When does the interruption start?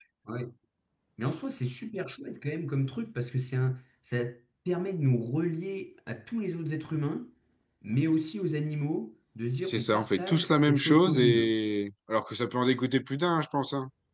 9.6 s

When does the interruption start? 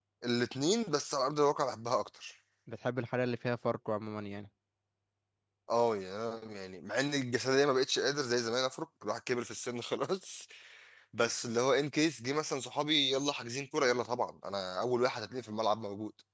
none

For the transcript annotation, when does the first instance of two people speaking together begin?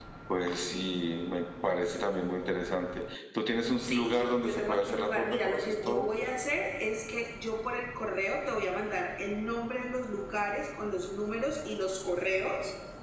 3.8 s

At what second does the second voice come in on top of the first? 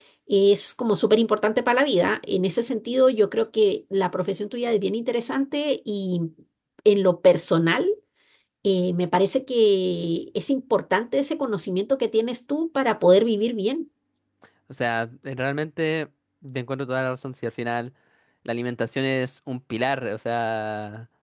none

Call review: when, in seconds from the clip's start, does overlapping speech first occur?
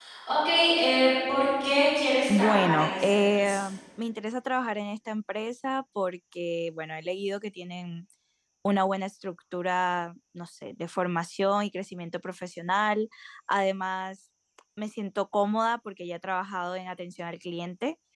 2.3 s

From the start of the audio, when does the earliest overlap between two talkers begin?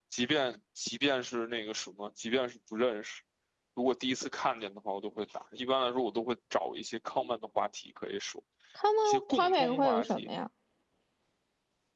9.1 s

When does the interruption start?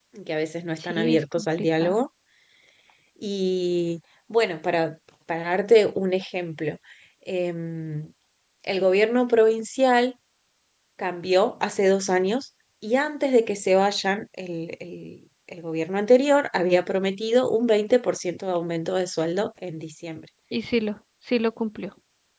0.8 s

